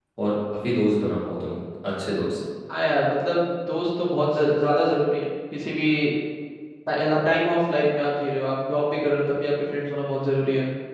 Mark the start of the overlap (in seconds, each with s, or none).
none